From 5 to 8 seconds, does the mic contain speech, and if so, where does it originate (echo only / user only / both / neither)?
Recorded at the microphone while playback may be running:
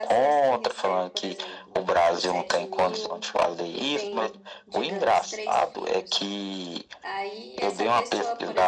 both